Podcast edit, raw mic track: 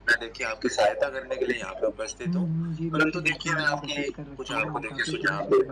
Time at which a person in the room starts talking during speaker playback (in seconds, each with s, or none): 2.3 s